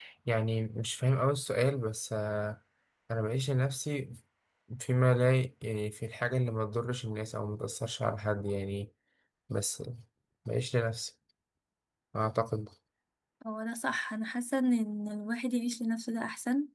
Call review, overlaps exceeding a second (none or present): none